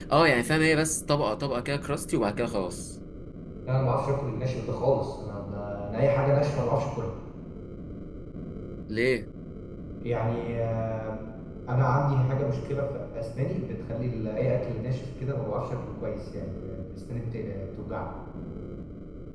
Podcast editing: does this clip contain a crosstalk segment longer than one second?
No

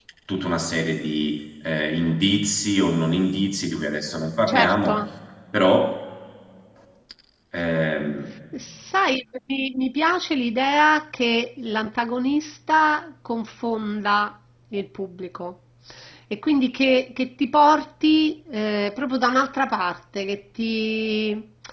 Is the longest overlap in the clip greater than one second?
No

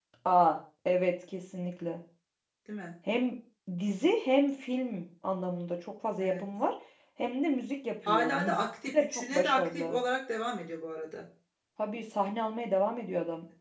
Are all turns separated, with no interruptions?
No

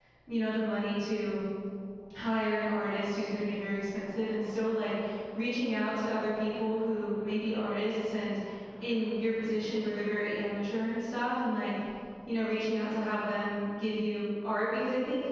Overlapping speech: No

